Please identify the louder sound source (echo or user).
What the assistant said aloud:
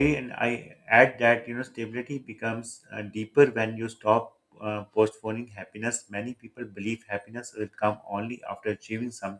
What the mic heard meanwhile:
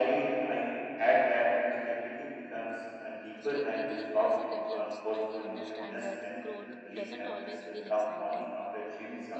echo